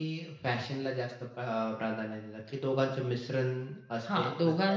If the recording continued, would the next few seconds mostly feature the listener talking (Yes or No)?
Yes